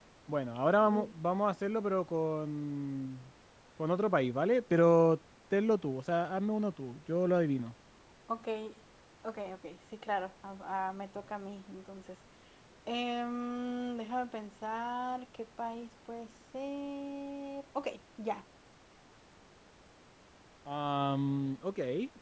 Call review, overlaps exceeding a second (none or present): none